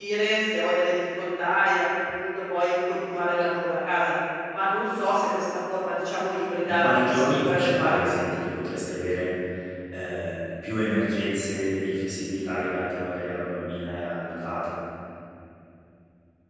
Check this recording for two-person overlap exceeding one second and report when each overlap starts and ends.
6.7-8.2

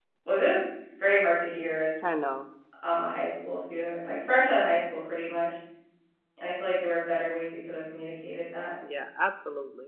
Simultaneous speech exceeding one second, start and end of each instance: none

